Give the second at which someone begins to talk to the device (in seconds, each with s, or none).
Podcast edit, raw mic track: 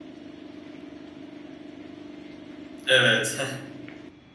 2.9 s